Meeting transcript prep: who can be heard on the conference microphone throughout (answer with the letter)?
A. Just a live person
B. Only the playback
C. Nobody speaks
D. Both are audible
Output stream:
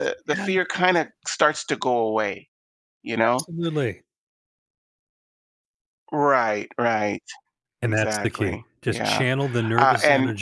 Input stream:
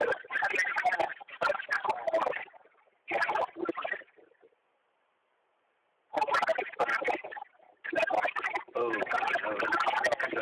D